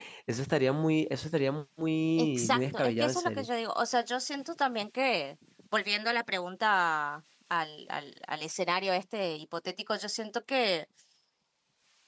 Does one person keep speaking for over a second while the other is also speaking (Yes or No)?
Yes